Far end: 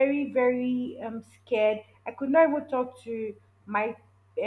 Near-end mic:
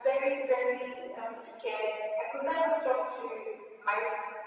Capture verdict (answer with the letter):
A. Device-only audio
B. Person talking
A